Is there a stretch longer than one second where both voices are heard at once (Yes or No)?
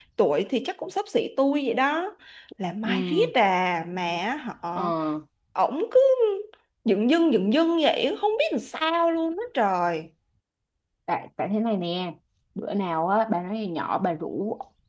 No